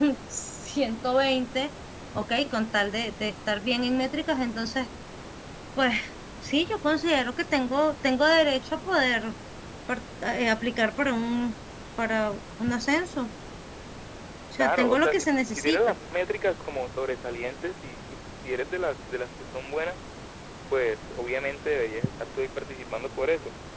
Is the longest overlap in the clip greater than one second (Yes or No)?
Yes